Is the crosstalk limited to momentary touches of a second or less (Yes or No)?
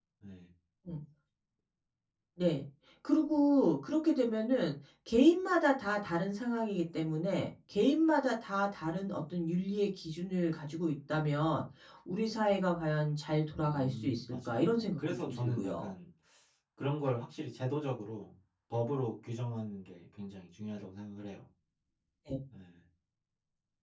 No